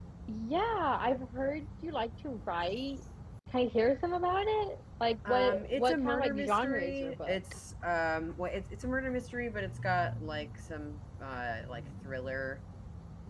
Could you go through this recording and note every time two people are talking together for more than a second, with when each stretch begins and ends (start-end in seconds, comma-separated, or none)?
5.3-7.4